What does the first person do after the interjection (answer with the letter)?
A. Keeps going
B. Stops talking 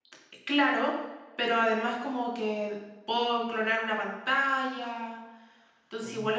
A